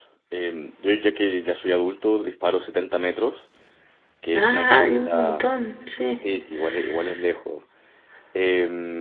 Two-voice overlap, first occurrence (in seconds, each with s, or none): 4.3 s